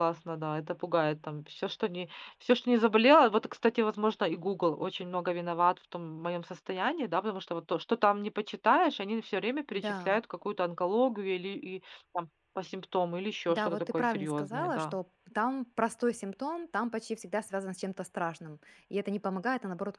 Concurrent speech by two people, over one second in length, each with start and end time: 13.5-14.9

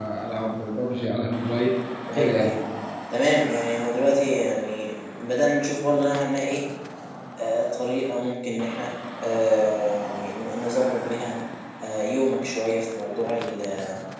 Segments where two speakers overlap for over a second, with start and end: none

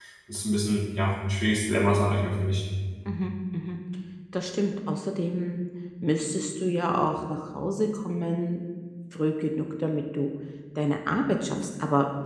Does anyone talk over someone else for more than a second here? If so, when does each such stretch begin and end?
none

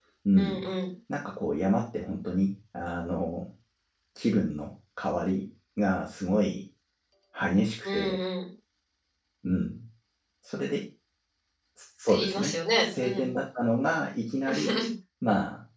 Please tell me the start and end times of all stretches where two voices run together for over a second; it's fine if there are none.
12.1-13.3

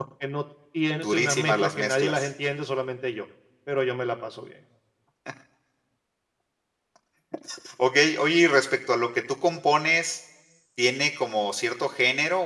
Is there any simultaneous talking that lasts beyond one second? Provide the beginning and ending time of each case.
1.0-2.3

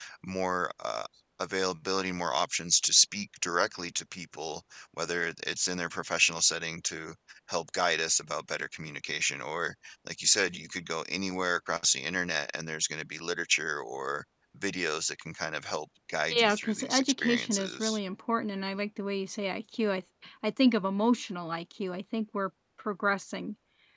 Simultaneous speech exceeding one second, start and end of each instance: 16.3-18.0

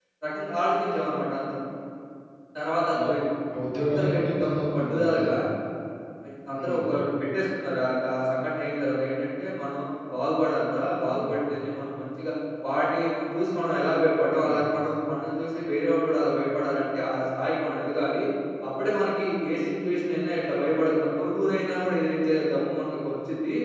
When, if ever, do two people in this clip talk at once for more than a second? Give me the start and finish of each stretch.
3.8-5.3

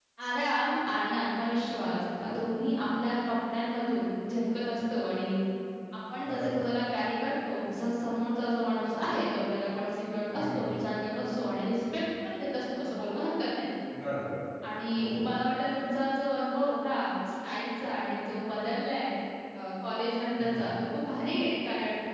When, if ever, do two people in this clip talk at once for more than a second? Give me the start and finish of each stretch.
none

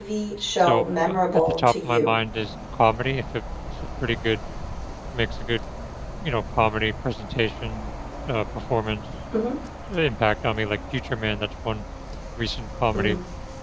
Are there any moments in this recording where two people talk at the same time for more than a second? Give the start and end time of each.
0.6-2.1

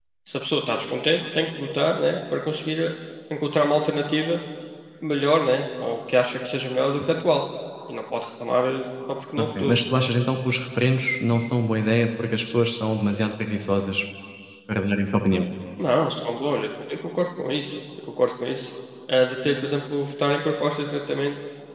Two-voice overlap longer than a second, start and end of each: none

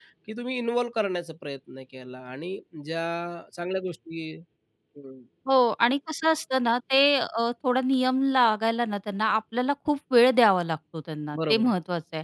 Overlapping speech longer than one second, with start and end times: none

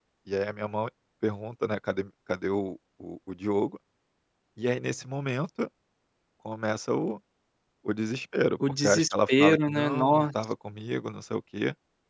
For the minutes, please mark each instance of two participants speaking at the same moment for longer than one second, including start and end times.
8.8-10.3

